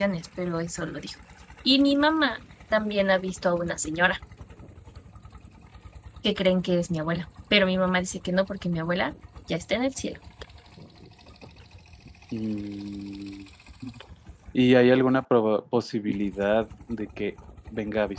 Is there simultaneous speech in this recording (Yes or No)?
No